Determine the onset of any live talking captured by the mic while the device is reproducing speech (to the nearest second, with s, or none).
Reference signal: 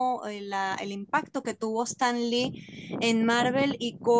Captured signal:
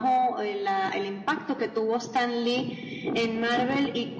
none